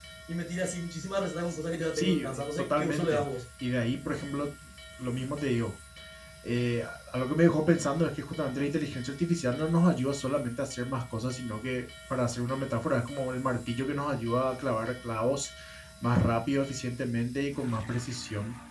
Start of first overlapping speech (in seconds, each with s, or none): 1.9 s